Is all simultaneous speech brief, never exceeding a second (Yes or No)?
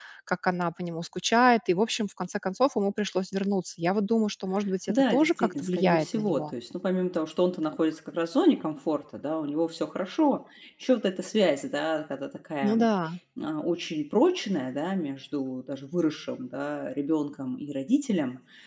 No